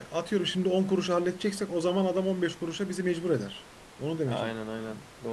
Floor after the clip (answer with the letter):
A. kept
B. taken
B